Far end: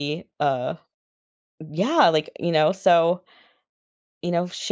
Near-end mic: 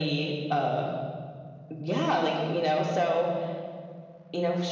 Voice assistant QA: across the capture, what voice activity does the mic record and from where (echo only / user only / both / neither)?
echo only